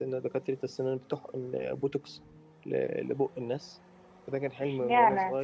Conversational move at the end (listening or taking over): taking over